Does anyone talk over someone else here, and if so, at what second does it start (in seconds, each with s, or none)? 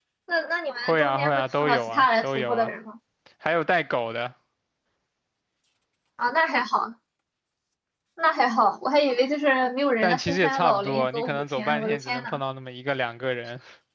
0.8 s